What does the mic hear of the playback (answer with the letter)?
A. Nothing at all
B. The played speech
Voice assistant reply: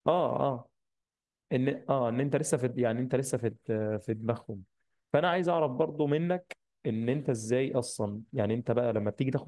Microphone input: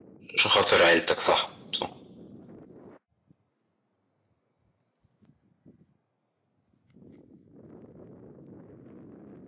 A